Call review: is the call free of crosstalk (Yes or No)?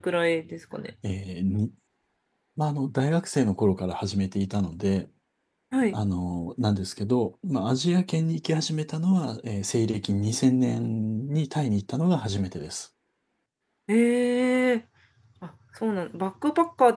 Yes